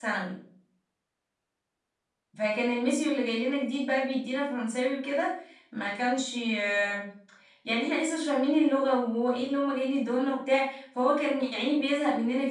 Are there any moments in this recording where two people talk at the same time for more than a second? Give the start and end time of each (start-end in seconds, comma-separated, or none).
none